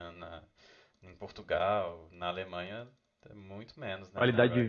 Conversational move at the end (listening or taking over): taking over